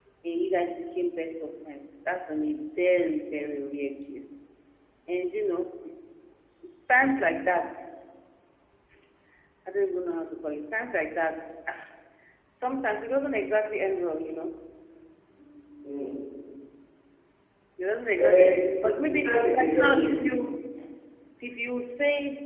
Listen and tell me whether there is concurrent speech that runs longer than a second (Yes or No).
Yes